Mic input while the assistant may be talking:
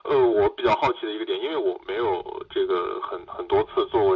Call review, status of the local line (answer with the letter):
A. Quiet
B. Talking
A